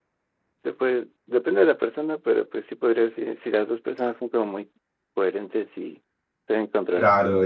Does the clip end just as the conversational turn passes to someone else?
Yes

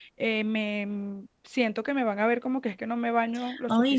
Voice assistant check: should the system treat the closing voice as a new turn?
Yes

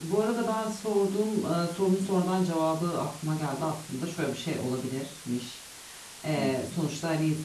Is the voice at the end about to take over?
No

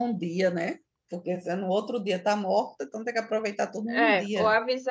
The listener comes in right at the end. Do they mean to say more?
Yes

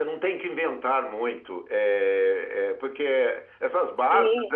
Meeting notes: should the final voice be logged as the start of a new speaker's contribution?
No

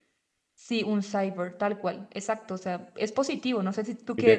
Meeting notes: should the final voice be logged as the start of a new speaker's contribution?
Yes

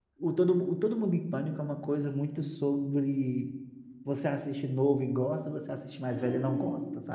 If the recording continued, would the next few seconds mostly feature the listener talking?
Yes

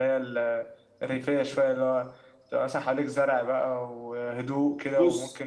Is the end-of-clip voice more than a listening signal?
No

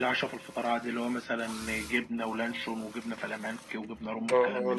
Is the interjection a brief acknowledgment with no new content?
No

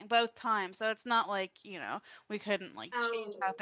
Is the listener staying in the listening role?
Yes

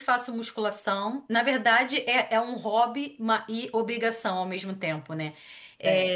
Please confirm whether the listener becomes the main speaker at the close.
No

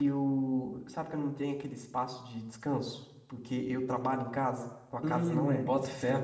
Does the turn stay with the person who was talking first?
No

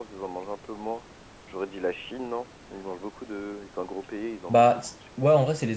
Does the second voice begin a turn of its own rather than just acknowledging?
Yes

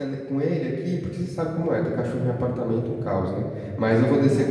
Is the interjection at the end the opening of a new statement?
No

